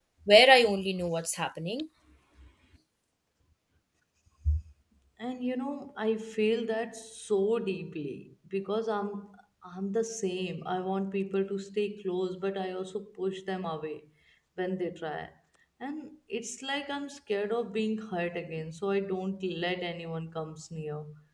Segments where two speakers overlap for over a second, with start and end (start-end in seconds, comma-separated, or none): none